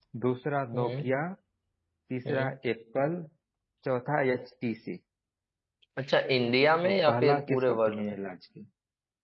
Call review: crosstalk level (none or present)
present